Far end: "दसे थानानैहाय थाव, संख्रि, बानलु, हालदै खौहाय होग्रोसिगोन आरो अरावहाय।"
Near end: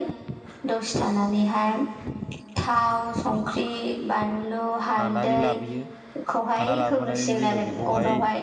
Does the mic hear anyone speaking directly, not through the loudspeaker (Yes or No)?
Yes